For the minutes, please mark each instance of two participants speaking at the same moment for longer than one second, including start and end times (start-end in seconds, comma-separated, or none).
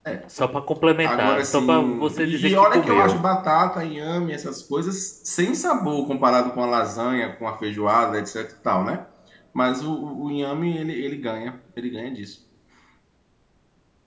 1.0-3.2